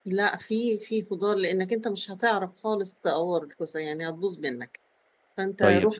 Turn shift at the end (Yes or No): No